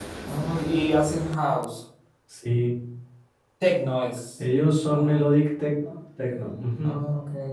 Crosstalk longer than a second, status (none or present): none